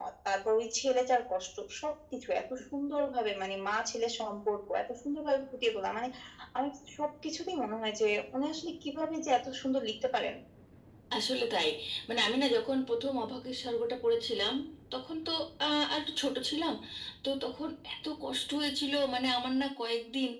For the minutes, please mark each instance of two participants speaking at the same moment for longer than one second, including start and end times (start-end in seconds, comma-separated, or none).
none